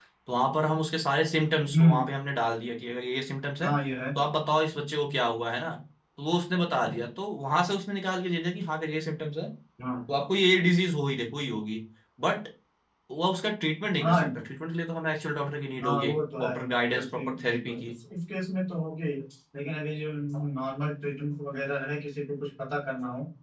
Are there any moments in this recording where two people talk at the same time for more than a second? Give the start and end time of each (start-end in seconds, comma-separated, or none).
15.8-17.9